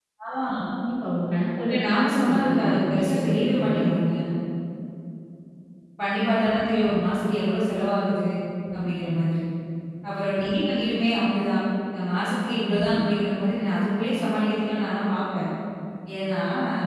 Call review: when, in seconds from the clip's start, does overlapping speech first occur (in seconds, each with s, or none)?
1.7 s